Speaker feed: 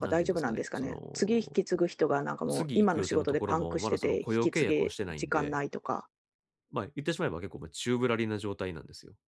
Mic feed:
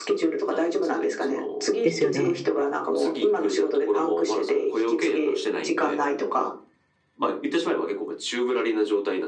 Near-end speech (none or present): present